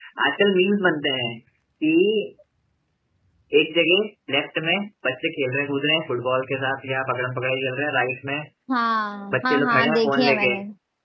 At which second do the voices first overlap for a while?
9.3 s

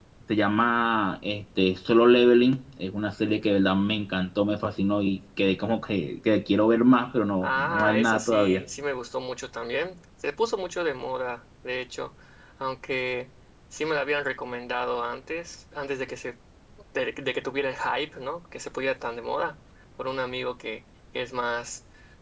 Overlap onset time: 7.4 s

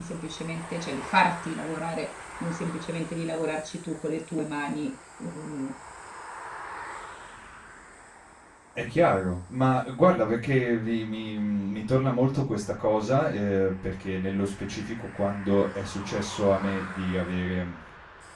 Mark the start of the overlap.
none

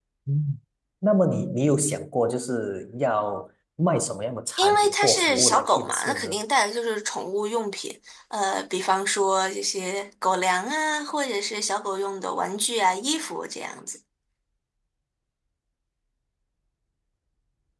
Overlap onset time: 4.6 s

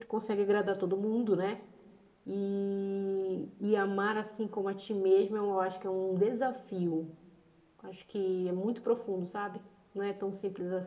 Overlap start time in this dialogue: none

